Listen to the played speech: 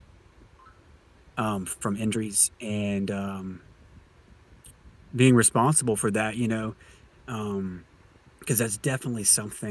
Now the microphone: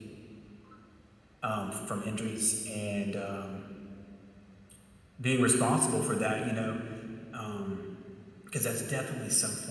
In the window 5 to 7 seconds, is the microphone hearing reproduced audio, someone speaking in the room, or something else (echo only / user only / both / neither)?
echo only